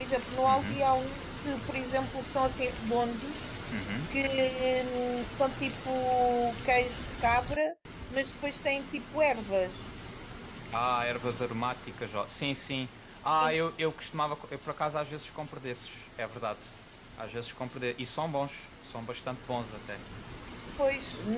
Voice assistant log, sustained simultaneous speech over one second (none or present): none